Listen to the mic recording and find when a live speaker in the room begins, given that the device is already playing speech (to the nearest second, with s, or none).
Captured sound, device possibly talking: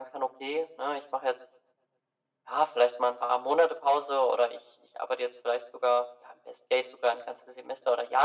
none